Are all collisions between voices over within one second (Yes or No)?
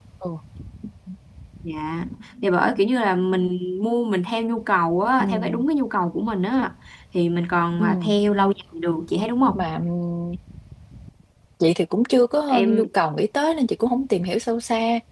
Yes